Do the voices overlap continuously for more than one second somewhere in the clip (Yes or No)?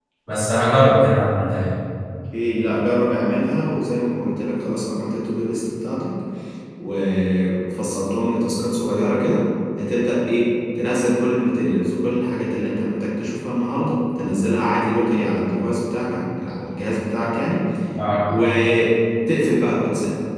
No